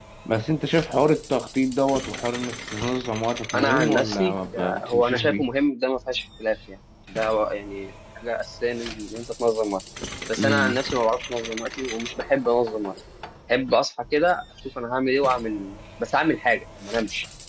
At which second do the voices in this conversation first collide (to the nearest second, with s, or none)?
4 s